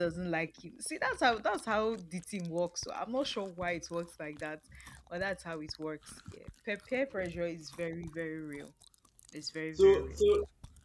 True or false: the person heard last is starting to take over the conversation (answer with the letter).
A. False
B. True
B